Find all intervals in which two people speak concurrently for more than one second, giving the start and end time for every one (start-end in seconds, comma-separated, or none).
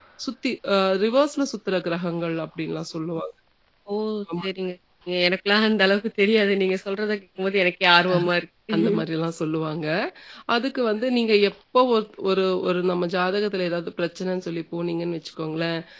none